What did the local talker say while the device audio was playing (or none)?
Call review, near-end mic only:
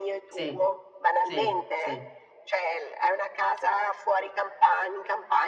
Sì, sì, sì.